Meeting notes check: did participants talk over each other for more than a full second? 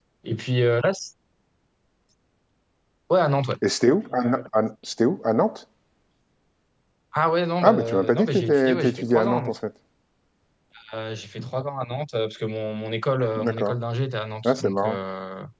Yes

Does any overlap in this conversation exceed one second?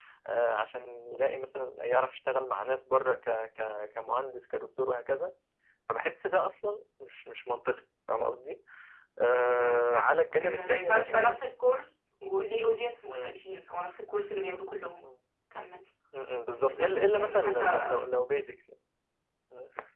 Yes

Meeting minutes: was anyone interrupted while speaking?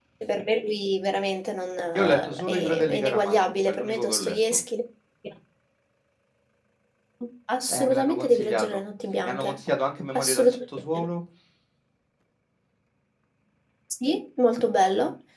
Yes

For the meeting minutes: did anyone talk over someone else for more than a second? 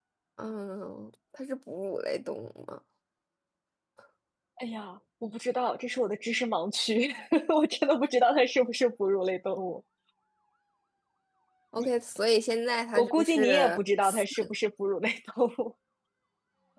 Yes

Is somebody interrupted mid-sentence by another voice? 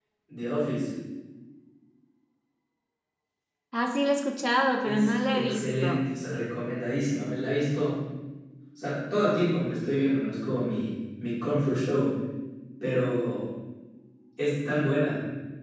Yes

